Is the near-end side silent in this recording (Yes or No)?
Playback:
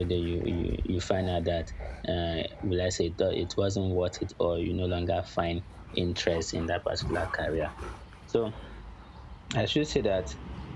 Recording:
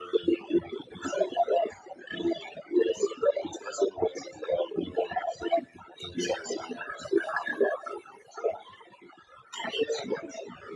Yes